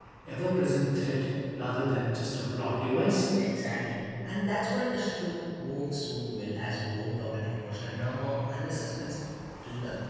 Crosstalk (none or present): none